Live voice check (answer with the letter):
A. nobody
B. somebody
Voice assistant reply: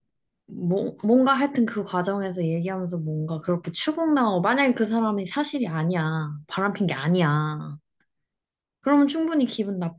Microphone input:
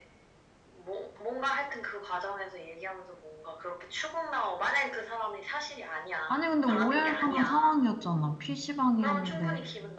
B